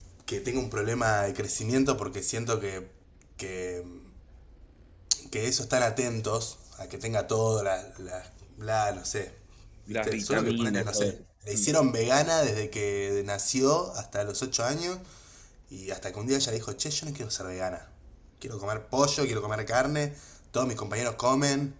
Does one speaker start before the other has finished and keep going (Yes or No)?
Yes